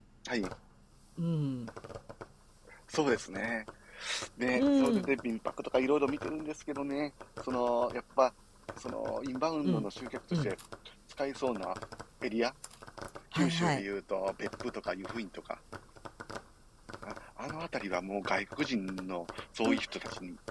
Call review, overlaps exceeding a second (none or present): none